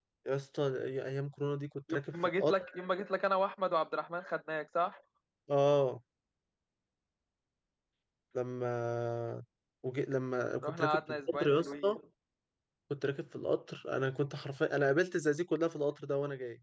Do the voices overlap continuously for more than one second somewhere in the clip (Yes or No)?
Yes